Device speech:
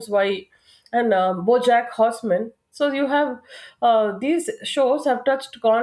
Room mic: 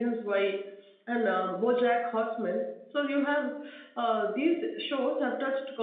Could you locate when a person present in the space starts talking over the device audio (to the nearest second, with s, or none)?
none